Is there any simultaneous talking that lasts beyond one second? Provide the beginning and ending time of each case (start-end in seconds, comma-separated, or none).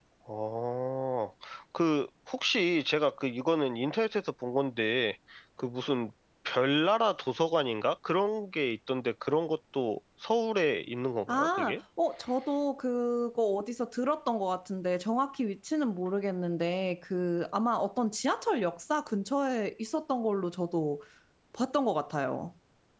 none